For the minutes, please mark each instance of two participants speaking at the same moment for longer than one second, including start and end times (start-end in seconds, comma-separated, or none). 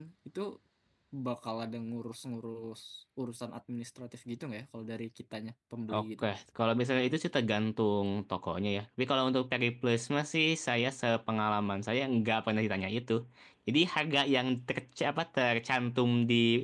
none